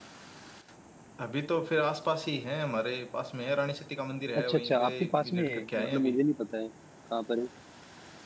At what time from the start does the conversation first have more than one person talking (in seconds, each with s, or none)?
4.4 s